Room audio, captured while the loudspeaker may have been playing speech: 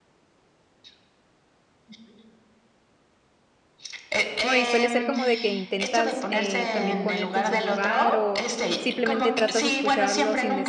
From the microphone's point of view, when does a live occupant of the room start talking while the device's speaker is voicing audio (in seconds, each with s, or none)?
4.4 s